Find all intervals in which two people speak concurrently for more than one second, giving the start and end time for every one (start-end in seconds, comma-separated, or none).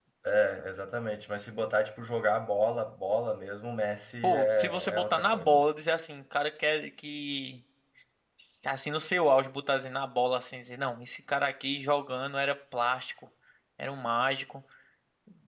4.2-5.6